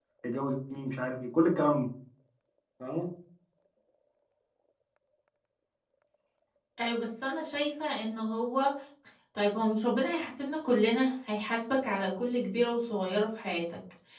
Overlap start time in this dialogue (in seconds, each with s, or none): none